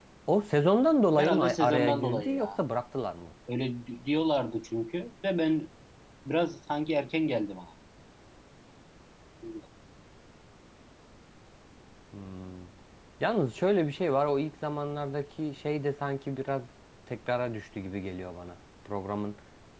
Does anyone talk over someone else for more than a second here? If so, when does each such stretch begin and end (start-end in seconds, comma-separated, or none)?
1.2-2.5